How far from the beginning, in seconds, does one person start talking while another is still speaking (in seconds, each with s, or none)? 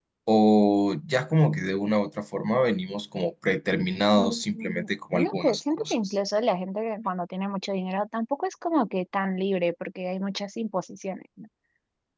4.2 s